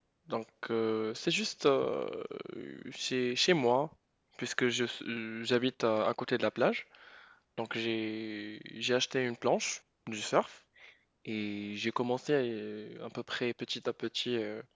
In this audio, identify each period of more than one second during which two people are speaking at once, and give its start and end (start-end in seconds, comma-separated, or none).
none